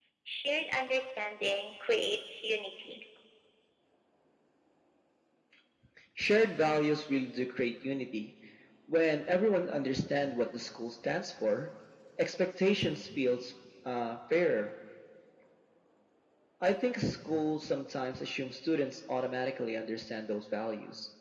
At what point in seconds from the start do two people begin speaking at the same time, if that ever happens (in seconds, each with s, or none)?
none